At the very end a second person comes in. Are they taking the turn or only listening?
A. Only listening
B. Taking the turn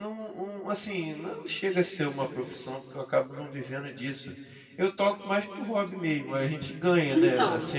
A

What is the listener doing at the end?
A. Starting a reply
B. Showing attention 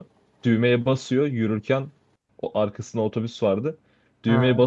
B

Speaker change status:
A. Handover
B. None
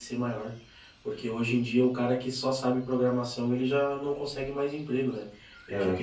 B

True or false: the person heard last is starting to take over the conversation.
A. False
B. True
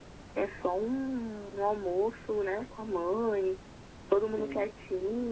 A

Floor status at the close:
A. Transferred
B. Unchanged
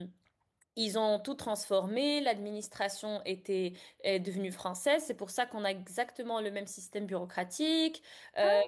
B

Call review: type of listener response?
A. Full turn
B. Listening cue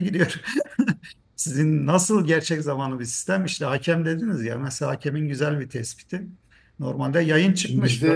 B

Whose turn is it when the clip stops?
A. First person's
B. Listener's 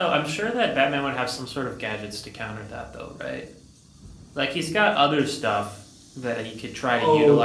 A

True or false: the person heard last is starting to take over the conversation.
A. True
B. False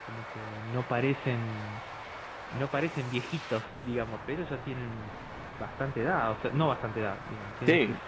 B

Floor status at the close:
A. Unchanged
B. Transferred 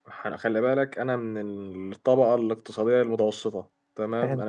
A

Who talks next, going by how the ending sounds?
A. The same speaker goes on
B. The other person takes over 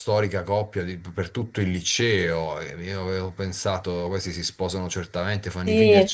A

